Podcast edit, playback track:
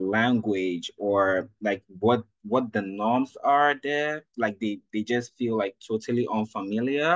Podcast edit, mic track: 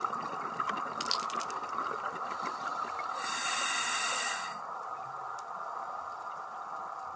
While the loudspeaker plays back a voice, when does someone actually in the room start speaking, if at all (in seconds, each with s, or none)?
none